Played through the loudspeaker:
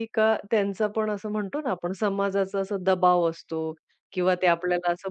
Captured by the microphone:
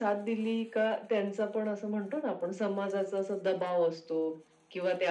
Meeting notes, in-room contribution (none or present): none